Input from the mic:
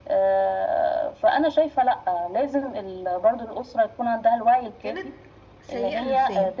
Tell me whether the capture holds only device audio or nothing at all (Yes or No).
No